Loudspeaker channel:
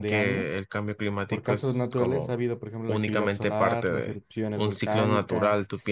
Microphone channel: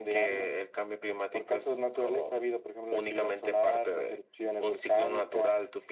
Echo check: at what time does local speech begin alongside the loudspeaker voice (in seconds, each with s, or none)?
none